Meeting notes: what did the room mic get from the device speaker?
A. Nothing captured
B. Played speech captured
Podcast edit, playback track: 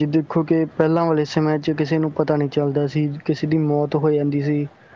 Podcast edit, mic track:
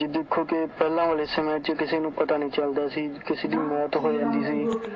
B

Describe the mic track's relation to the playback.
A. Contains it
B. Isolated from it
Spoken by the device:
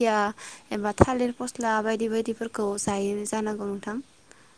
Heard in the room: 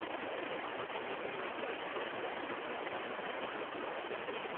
B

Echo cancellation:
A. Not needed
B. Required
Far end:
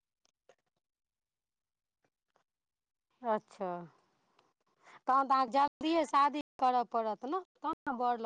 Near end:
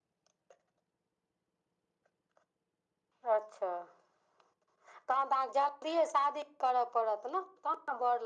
B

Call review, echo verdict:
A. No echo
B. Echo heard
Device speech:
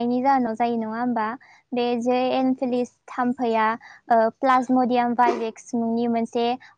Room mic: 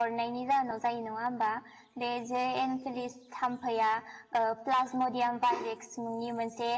B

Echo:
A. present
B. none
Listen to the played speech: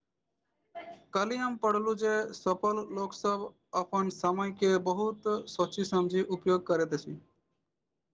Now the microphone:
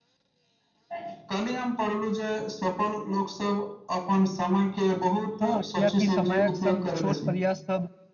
A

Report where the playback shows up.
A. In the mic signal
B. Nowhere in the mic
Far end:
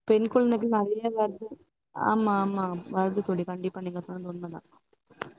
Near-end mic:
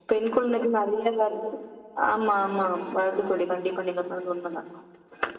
A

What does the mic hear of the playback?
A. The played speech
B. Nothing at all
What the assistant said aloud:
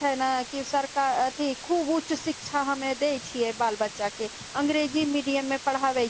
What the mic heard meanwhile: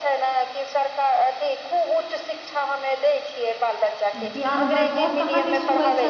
A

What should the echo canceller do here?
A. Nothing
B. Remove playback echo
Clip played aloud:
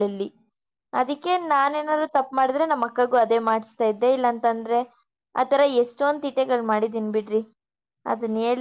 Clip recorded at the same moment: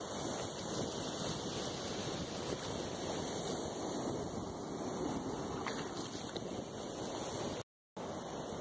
A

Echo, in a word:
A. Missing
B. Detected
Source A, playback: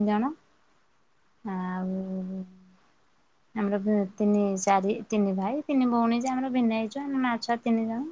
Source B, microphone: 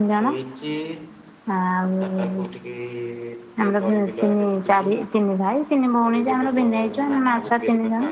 B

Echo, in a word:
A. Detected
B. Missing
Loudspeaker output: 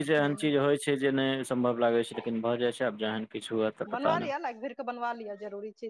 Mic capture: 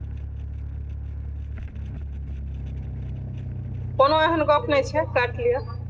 B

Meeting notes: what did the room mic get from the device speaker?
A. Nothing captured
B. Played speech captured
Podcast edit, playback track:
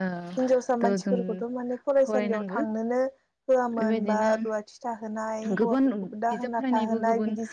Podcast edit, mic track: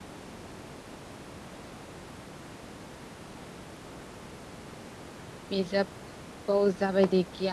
A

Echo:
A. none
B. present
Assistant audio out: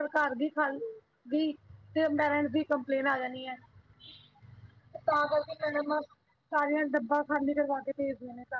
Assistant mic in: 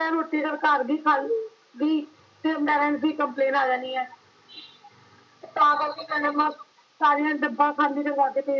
B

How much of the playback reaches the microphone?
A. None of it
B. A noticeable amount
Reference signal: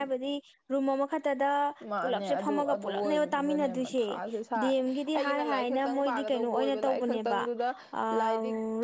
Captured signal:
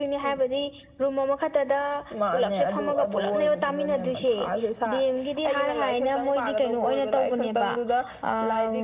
B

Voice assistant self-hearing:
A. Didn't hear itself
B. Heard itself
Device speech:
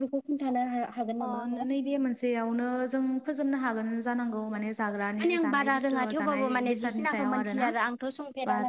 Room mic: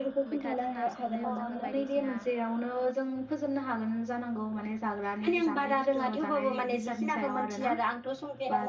B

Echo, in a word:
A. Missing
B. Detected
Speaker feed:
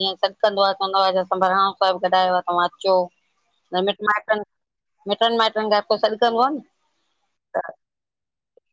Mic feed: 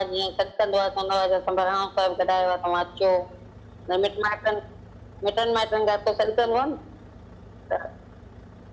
B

